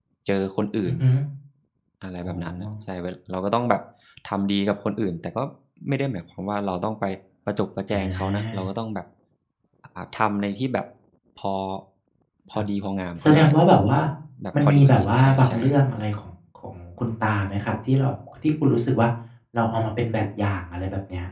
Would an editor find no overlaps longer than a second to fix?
No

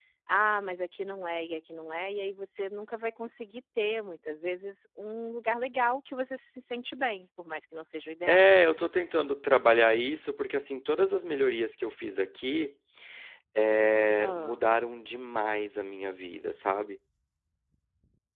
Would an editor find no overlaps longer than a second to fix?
Yes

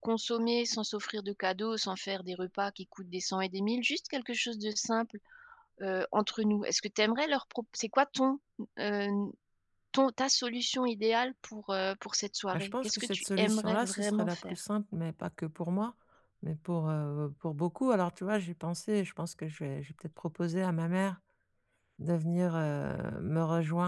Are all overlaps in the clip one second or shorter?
No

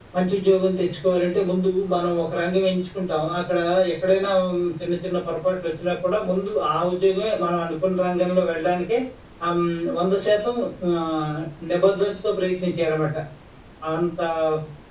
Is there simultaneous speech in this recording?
No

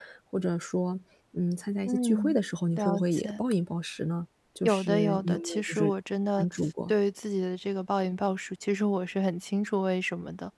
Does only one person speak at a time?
No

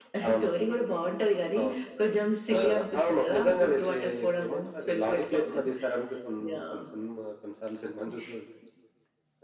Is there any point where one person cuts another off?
Yes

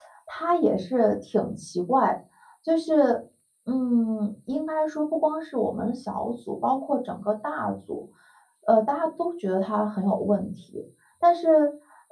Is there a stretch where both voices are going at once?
No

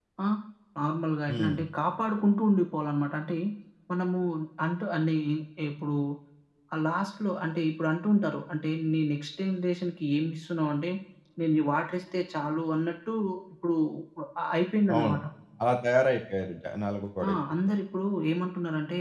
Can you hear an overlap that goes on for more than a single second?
No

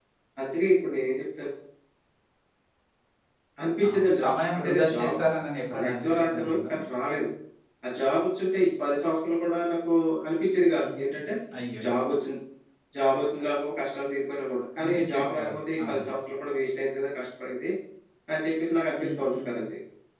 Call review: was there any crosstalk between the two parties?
Yes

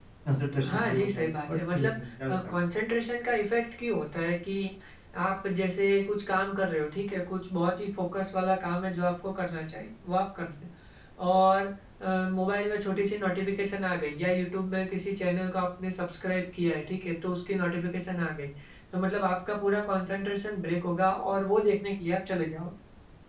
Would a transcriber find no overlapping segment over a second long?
No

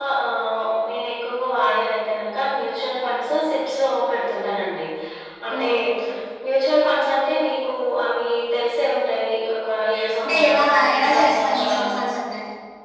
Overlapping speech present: Yes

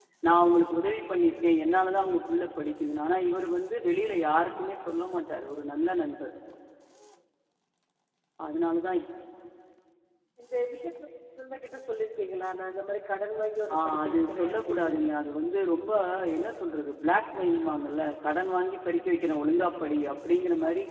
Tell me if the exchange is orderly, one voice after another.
No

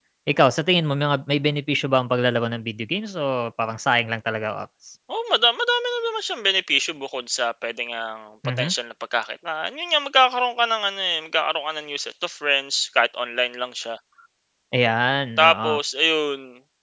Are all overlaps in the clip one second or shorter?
Yes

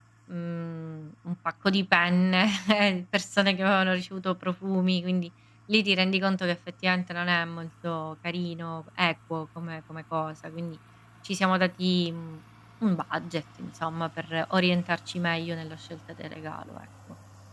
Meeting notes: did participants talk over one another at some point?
No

